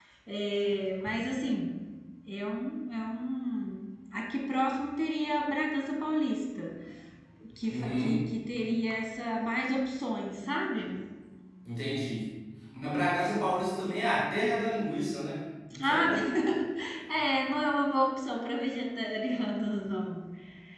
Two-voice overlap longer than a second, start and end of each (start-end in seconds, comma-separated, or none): none